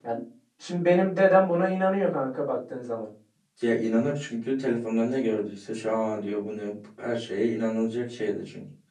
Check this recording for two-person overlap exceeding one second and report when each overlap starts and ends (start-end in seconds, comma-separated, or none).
none